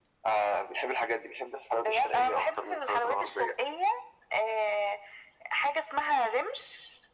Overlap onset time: 1.8 s

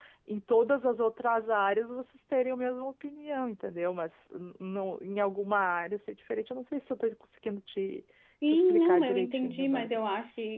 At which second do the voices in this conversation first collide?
8.5 s

